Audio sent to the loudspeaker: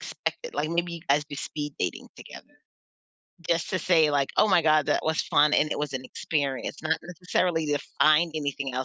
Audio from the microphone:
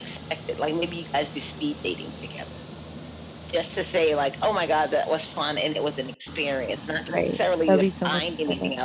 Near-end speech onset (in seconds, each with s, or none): 7.1 s